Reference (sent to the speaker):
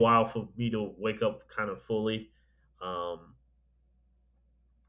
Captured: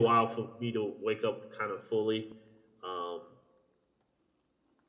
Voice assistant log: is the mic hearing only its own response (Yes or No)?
Yes